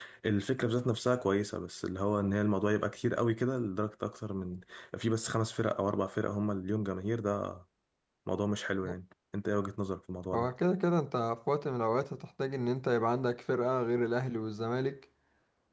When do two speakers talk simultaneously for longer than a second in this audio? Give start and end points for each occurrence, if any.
none

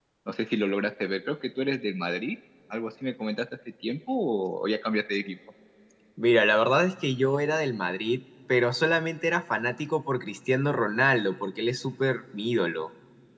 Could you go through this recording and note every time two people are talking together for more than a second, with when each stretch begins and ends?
none

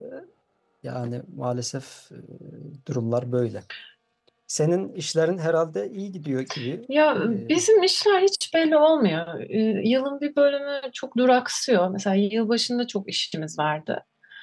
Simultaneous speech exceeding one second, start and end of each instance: none

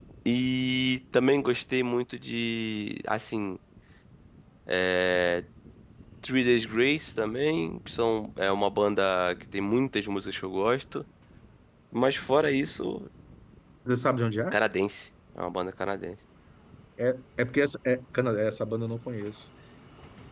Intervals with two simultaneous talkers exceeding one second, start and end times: none

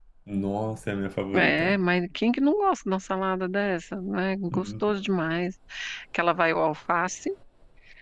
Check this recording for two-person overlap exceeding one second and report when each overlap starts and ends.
none

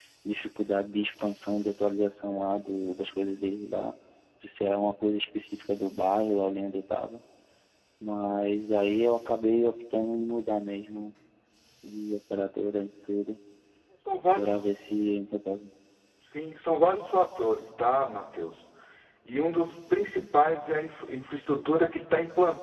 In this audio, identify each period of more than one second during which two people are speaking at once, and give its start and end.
none

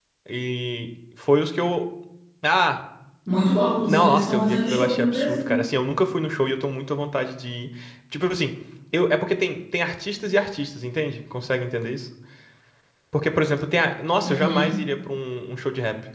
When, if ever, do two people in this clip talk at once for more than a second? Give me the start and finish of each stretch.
3.9-5.6

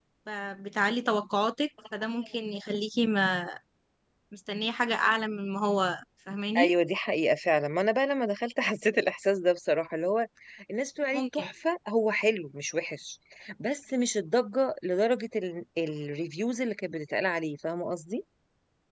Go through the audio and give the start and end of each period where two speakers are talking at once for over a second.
none

